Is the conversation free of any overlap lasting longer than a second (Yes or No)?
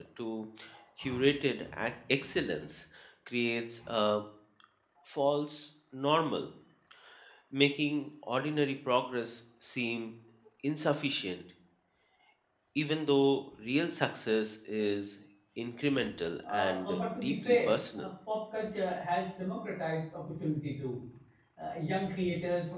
No